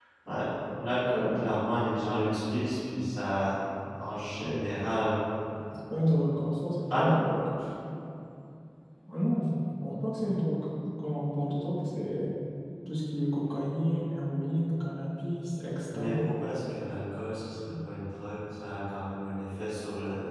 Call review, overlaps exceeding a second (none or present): none